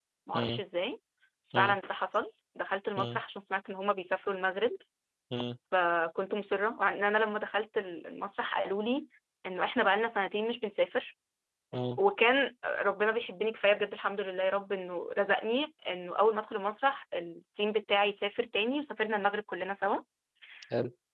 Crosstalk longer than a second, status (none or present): none